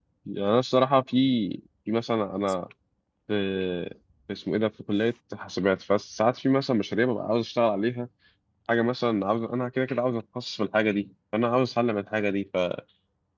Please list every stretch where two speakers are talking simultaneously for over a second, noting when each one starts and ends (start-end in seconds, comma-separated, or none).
none